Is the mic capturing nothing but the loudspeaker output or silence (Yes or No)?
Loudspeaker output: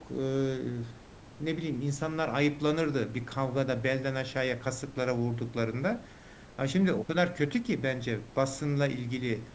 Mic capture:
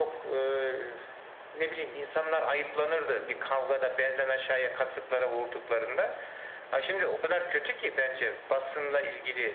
No